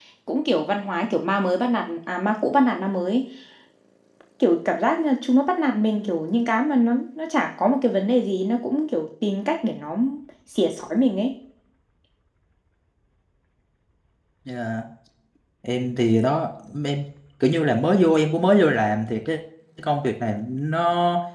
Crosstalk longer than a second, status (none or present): none